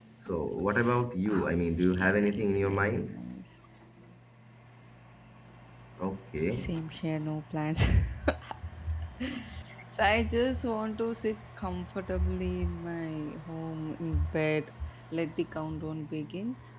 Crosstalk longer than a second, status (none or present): present